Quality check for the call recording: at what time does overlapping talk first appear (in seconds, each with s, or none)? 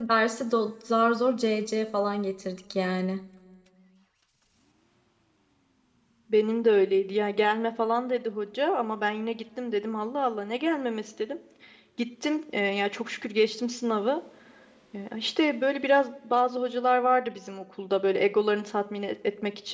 none